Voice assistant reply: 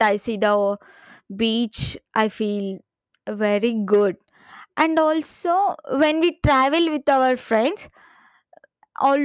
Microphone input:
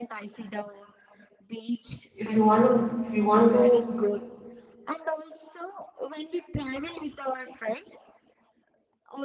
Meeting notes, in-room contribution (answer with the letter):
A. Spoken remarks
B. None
A